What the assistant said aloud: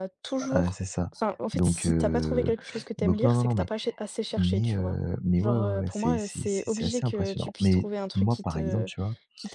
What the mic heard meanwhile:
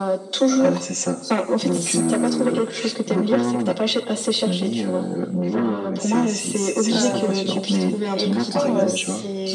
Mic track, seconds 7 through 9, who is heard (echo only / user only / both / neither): both